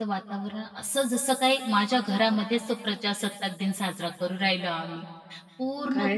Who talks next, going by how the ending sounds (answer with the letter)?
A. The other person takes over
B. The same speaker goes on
A